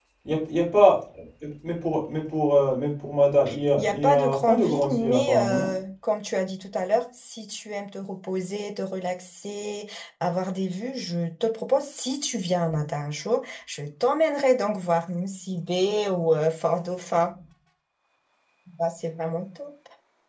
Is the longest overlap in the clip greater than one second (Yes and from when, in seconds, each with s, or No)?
Yes, from 3.8 s